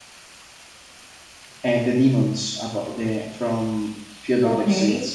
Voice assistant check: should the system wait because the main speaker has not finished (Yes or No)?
No